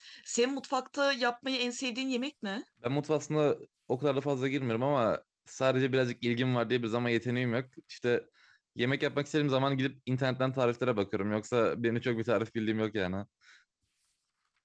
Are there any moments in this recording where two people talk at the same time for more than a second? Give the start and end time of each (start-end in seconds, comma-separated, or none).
none